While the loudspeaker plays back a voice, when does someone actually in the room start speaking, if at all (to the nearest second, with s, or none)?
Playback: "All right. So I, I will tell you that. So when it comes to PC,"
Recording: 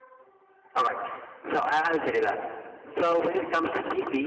none